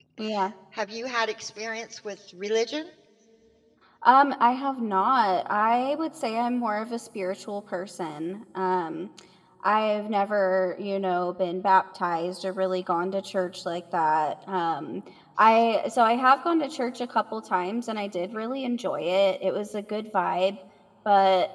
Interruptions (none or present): none